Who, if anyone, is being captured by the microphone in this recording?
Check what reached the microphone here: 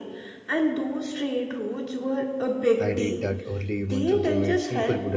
both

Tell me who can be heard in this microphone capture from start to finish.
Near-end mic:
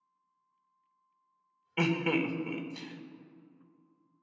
user only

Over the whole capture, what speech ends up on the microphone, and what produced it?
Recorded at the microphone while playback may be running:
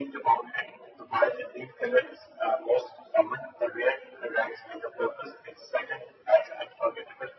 echo only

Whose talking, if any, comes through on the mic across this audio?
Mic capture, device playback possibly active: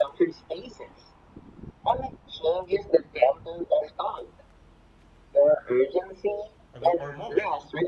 both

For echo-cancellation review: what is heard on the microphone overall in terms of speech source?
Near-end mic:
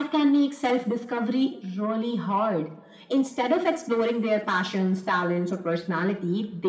echo only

